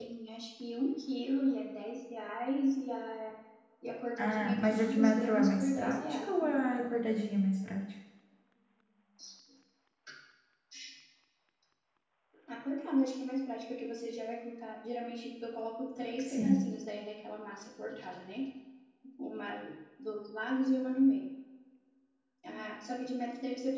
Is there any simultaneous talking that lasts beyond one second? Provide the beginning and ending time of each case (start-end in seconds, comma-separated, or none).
4.2-6.7